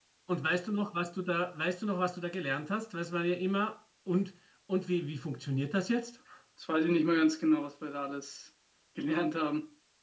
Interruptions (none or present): none